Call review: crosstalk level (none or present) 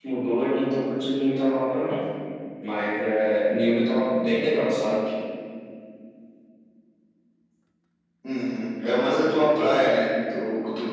none